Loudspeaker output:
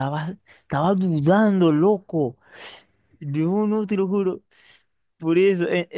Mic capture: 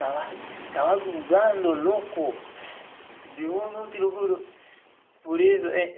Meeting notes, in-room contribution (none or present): none